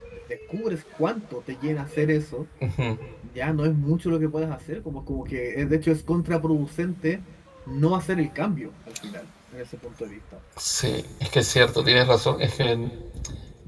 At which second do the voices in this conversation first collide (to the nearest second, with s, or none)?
none